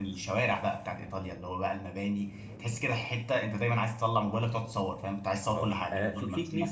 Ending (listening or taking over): taking over